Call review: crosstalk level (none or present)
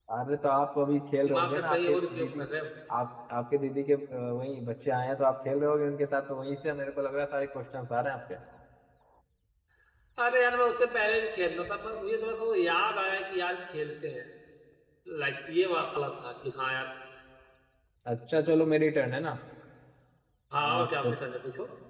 present